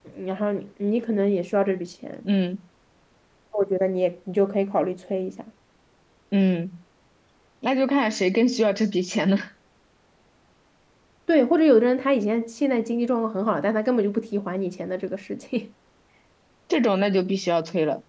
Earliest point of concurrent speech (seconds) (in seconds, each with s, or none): none